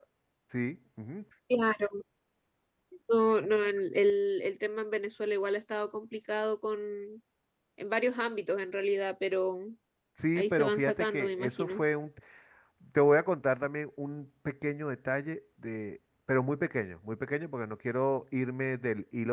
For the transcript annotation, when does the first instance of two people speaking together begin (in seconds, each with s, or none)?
10.4 s